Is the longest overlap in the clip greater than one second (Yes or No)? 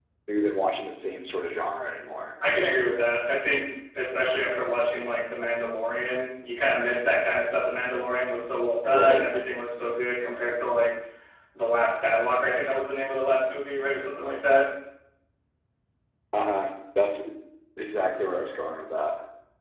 No